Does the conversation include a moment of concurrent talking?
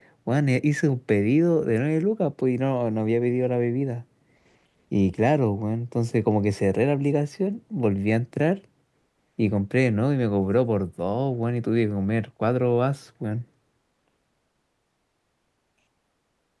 No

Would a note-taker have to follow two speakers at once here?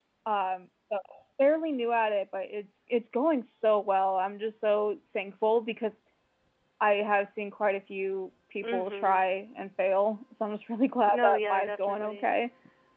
Yes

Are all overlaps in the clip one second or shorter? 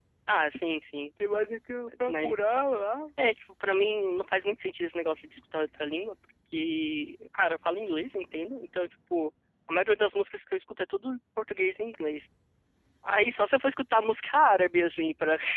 Yes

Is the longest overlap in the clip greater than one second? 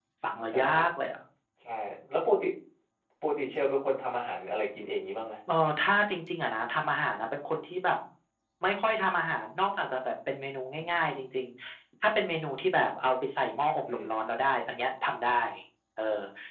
No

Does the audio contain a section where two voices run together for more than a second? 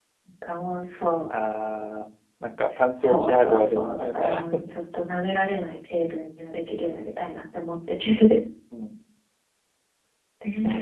Yes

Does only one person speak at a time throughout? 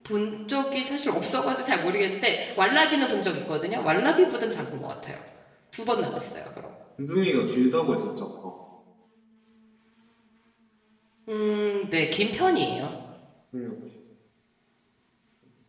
Yes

